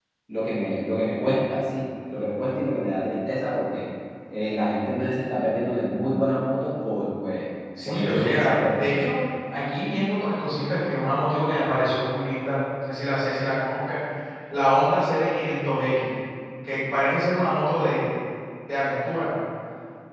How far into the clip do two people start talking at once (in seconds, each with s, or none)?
7.8 s